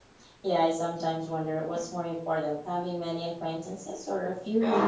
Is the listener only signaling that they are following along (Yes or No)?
No